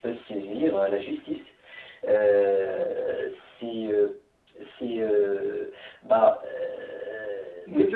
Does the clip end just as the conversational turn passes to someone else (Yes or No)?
Yes